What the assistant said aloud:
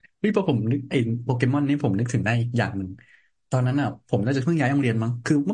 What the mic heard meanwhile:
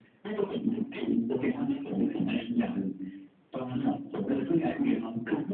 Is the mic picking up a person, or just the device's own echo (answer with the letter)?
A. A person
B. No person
B